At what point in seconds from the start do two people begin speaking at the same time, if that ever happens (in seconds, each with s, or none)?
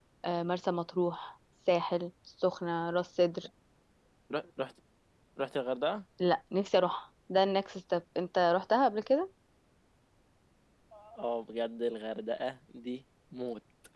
none